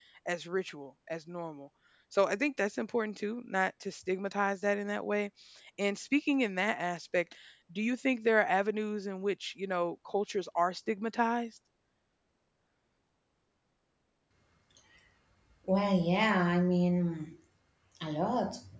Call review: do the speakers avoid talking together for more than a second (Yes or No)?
Yes